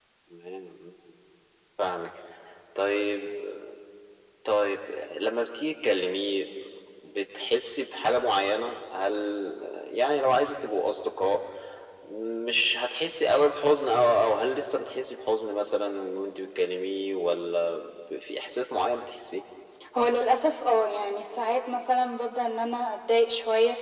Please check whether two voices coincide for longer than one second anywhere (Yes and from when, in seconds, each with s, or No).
No